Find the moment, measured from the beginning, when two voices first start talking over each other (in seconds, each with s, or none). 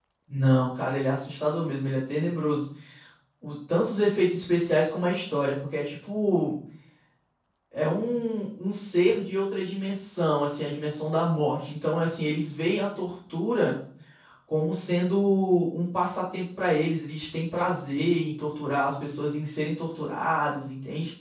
none